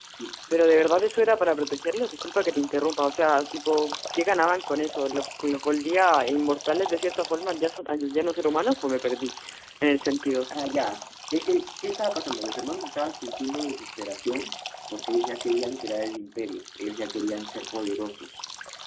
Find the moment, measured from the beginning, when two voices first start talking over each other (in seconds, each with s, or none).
none